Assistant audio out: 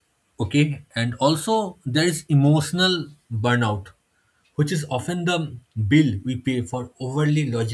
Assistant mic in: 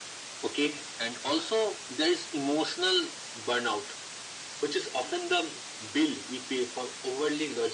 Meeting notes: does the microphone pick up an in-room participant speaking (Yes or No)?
No